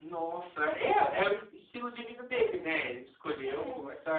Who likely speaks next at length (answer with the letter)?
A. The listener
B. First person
B